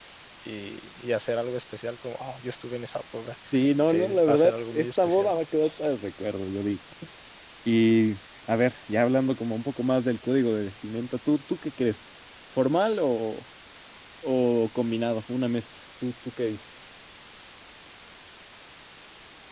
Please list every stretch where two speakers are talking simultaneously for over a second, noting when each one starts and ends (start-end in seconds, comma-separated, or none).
3.9-5.3